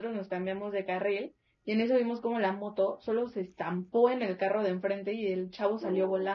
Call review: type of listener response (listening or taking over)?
listening